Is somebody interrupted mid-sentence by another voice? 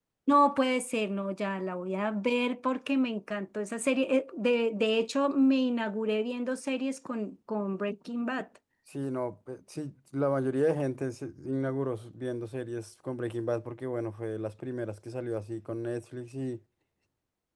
No

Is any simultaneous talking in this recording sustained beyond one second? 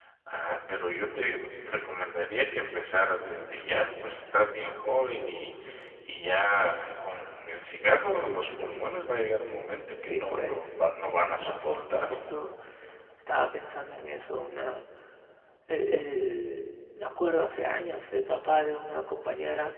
Yes, from 10.0 s

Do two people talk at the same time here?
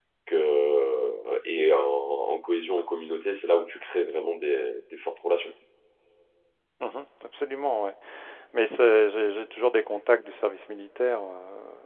No

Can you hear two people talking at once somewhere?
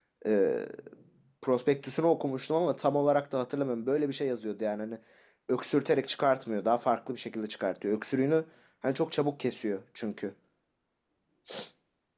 No

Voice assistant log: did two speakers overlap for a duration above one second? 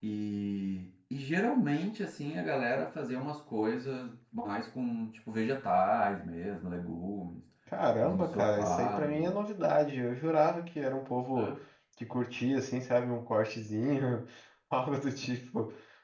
Yes, from 8.0 s

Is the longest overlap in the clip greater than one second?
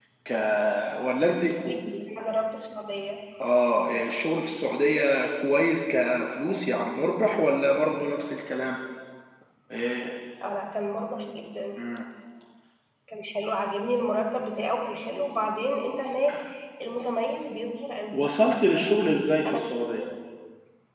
No

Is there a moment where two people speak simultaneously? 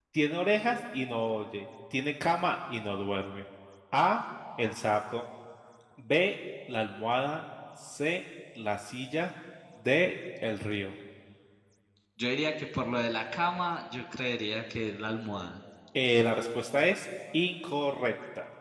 No

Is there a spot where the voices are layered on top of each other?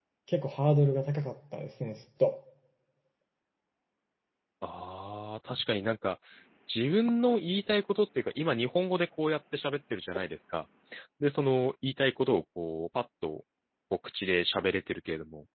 No

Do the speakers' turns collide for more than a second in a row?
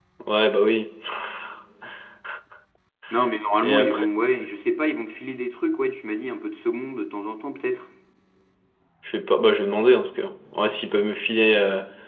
No

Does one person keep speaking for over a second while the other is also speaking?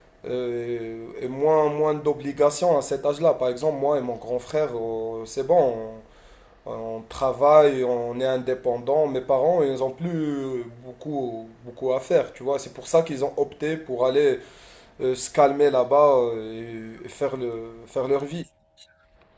No

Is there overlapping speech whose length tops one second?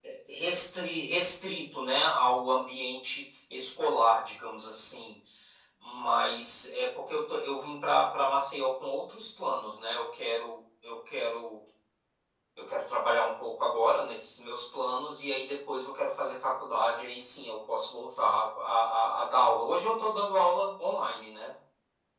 No

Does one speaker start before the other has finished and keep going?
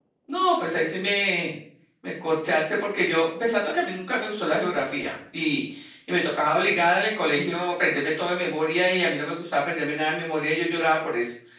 No

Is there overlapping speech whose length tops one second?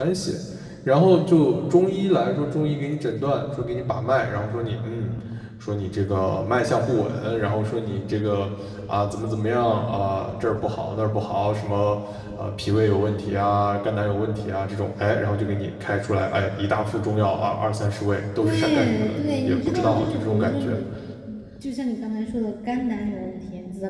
Yes, from 18.4 s

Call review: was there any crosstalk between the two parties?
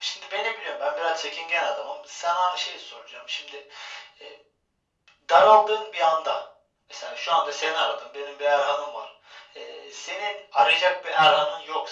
No

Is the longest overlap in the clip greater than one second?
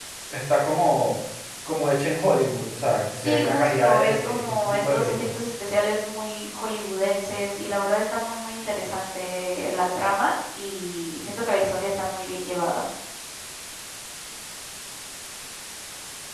Yes, from 3.2 s

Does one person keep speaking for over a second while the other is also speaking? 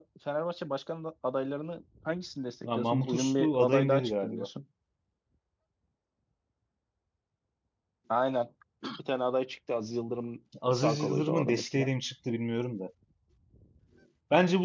Yes, from 2.8 s

